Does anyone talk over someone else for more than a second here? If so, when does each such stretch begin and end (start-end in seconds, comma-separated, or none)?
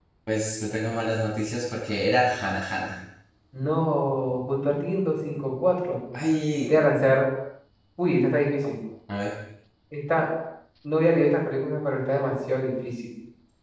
none